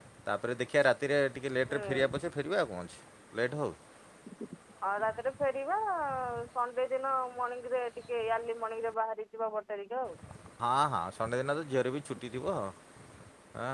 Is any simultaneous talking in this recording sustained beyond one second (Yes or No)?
No